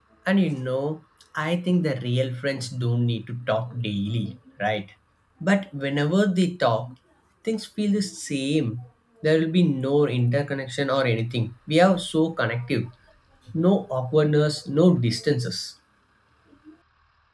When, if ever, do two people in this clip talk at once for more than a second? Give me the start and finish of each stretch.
none

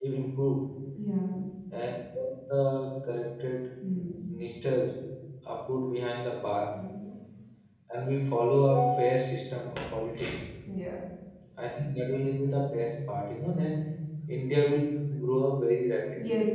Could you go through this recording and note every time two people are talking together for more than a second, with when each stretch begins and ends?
none

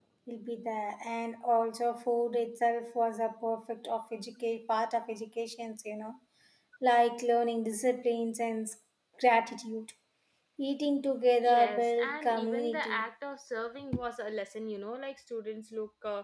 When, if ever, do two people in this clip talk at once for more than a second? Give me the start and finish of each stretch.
11.4-13.0

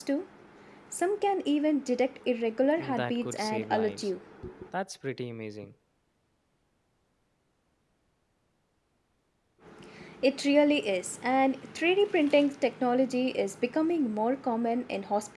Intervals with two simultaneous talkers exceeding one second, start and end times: 2.8-4.1

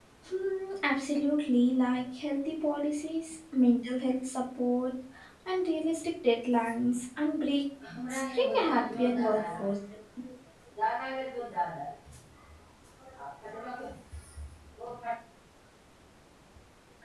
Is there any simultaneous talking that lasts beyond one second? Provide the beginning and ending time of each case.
8.1-9.6

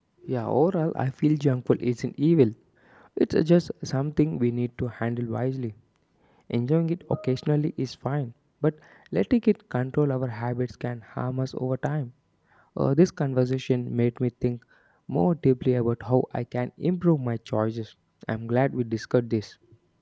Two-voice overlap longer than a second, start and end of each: none

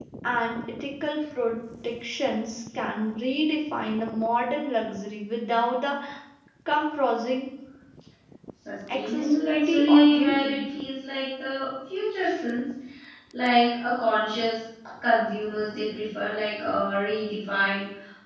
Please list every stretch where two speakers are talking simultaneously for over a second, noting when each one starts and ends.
8.9-10.6

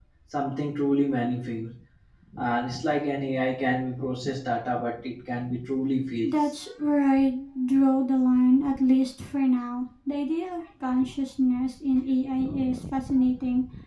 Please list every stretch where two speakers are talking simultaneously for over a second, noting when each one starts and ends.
none

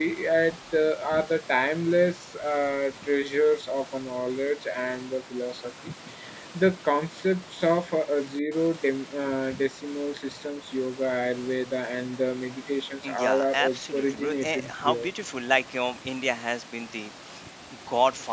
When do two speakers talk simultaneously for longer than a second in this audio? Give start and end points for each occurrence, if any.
13.0-15.1

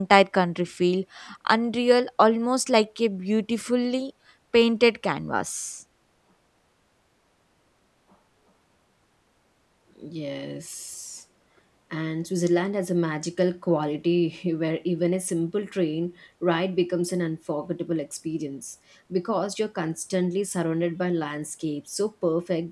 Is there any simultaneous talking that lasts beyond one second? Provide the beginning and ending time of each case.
none

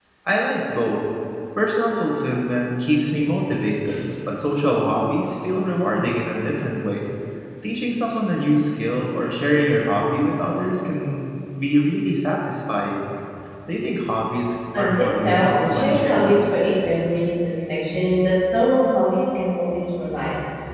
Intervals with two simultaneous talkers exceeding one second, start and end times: 14.8-16.4

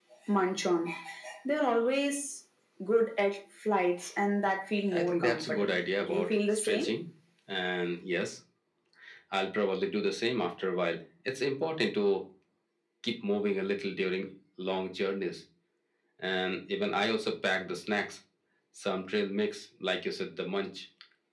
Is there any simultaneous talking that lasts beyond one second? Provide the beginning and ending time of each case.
4.9-6.9

